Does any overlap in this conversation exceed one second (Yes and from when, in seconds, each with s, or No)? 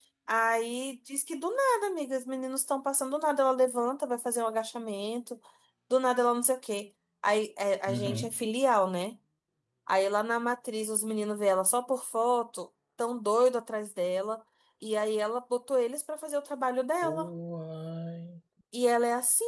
No